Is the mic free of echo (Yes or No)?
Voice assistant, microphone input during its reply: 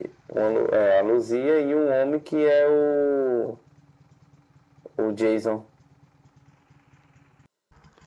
No